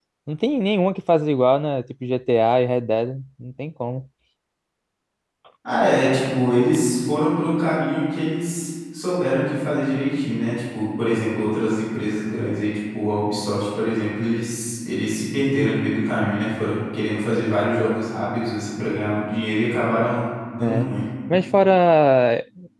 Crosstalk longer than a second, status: none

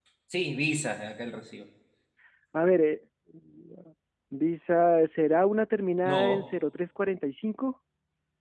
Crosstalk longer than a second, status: none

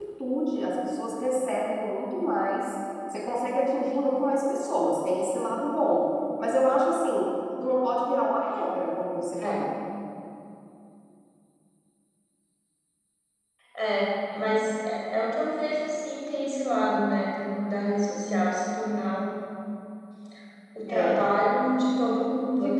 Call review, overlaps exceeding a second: none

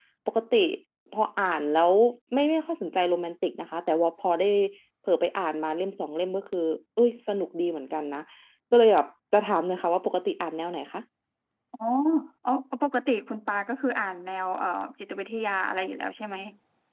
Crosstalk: none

